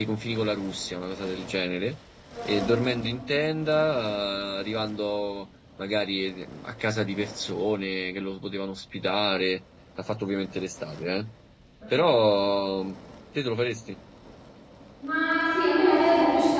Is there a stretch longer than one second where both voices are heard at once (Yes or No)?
No